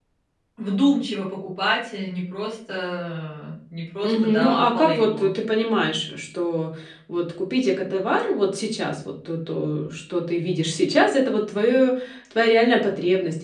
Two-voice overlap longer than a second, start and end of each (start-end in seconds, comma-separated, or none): 4.0-5.3